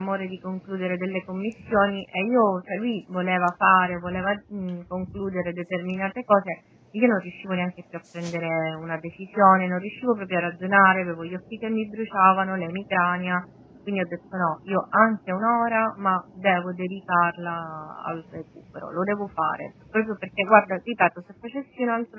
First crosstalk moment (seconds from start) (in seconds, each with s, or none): none